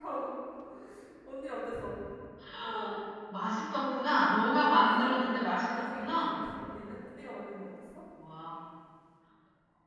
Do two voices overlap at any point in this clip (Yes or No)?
Yes